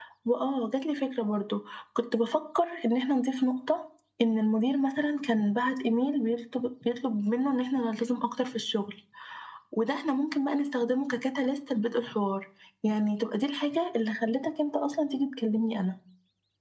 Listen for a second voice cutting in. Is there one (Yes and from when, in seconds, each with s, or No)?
No